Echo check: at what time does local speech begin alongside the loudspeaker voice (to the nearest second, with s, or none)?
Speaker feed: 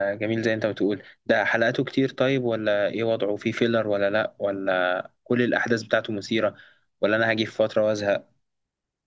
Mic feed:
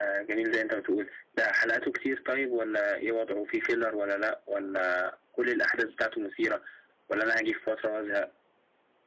none